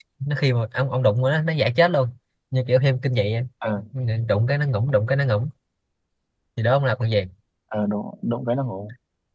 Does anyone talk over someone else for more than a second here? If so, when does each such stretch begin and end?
none

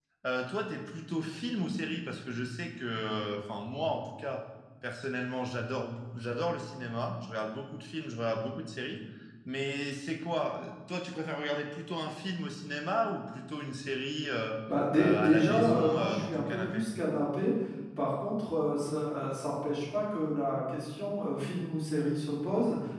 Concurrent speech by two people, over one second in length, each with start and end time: 15.0-16.8

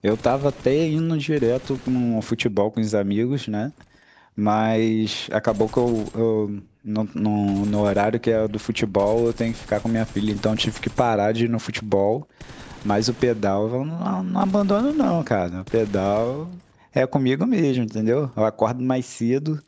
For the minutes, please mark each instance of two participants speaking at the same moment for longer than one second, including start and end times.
none

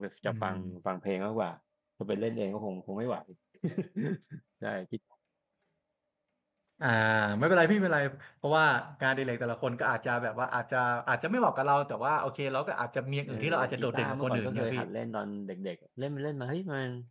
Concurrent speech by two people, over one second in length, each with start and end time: 13.3-14.8

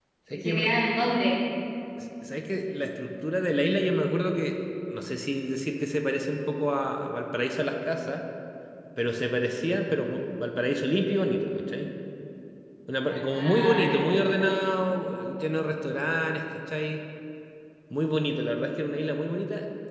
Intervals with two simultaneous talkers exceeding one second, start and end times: 13.1-14.5

